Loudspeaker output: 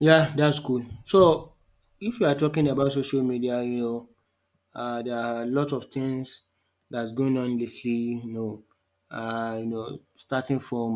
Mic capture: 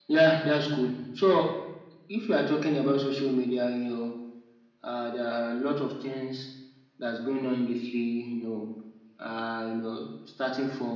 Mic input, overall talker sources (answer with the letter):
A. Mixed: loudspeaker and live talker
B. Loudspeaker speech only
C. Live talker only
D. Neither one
B